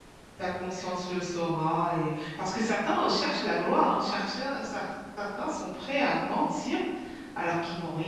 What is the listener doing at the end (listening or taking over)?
listening